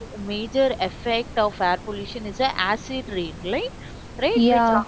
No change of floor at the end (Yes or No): Yes